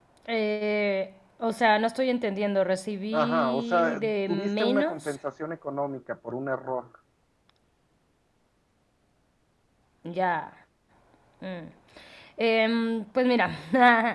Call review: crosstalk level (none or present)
present